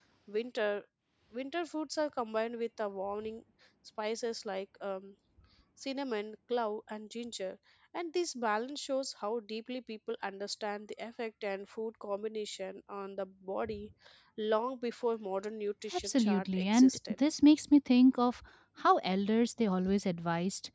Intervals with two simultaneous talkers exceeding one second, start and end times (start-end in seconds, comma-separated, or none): 15.9-17.1